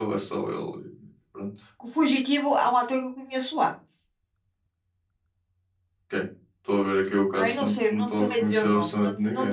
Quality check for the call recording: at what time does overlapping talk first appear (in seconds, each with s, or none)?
7.4 s